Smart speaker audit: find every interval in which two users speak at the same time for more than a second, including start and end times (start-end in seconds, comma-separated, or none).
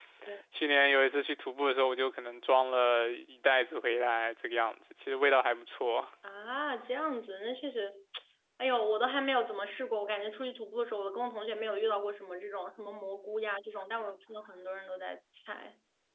none